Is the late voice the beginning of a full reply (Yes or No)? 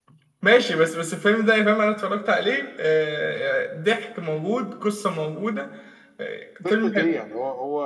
Yes